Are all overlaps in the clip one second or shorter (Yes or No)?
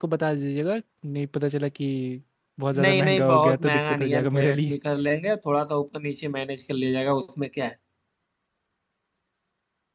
No